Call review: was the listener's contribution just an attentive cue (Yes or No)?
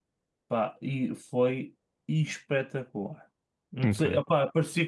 Yes